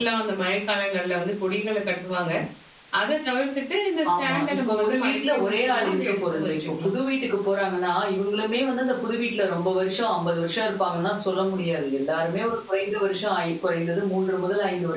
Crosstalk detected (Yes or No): Yes